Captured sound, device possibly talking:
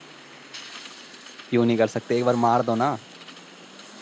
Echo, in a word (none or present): none